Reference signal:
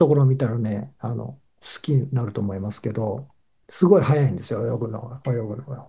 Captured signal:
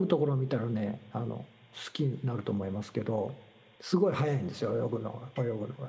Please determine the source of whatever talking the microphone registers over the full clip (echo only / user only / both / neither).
echo only